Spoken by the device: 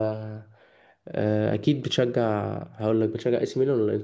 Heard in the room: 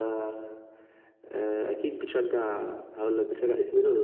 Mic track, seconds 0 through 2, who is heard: echo only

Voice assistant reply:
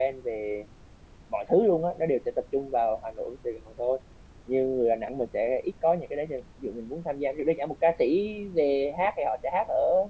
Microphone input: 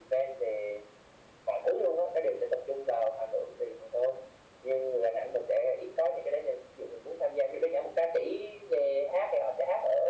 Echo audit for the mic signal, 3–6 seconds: echo only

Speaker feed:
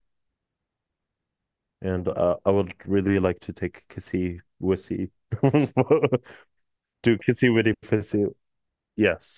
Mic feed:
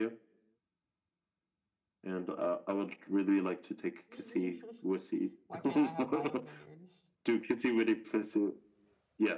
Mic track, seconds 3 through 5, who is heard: both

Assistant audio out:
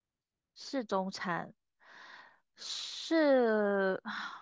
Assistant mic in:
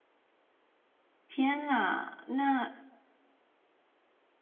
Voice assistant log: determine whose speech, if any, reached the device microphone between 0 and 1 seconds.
neither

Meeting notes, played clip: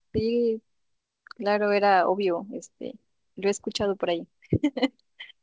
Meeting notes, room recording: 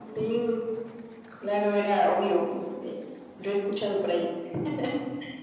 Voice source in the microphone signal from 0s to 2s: echo only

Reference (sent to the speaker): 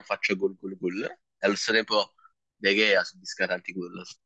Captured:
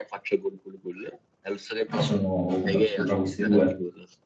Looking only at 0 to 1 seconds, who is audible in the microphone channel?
echo only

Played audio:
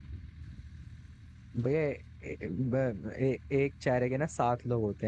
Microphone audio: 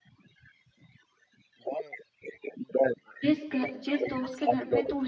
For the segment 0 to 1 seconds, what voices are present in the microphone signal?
neither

